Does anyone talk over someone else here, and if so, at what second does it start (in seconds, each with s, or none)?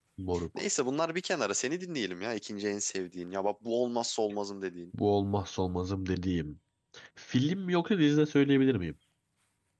none